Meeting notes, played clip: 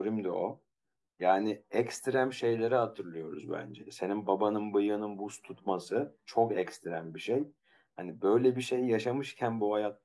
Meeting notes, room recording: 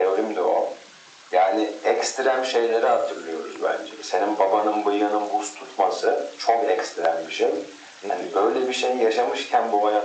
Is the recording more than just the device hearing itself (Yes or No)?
Yes